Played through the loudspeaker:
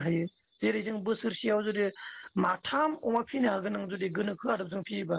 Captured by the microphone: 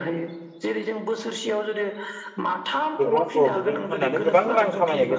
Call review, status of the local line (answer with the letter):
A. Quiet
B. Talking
B